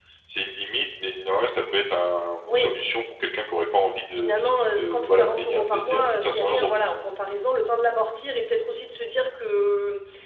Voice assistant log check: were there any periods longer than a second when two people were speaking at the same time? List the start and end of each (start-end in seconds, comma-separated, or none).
4.1-6.7